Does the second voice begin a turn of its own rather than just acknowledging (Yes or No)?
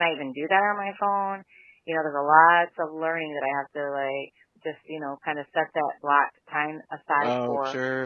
Yes